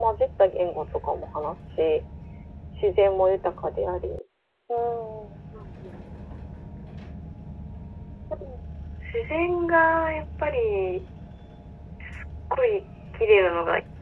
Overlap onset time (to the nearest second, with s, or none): none